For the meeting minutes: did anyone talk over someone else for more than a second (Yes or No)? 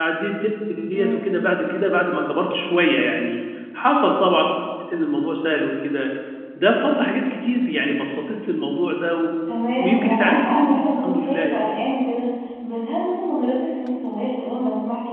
Yes